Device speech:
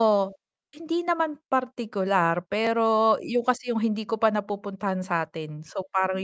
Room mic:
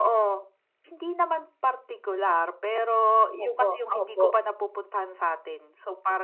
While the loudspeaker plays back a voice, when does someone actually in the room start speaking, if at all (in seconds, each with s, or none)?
3.3 s